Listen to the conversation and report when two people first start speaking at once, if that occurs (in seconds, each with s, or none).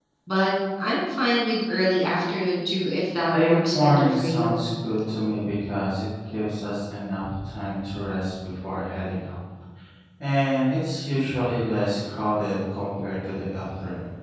3.3 s